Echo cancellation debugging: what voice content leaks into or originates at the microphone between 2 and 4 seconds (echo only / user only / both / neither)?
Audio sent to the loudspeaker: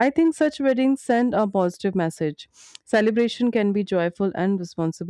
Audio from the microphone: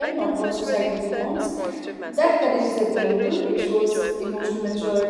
both